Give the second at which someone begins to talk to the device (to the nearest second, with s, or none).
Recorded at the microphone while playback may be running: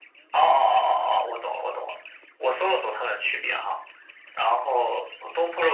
none